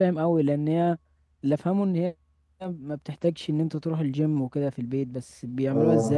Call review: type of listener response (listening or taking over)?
taking over